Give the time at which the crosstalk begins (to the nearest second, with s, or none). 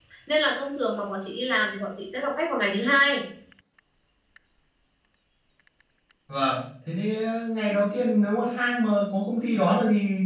none